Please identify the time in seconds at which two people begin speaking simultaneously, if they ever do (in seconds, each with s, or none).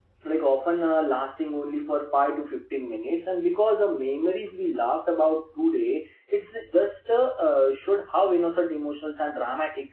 none